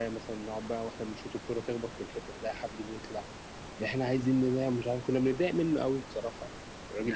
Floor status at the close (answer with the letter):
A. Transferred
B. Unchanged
A